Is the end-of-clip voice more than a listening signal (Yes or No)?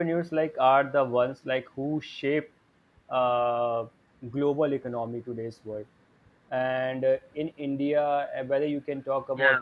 No